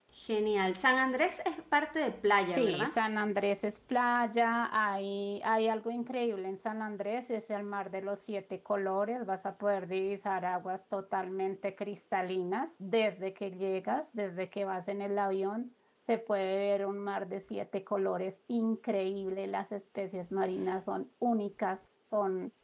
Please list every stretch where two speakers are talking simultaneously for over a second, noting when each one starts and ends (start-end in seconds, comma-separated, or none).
none